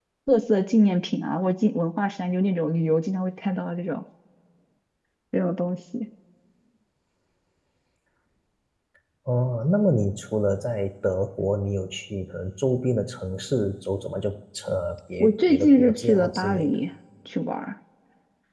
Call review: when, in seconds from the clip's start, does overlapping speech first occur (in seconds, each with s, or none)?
15.2 s